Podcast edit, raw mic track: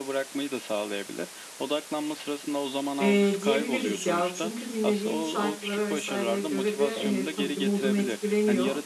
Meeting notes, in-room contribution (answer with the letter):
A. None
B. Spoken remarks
B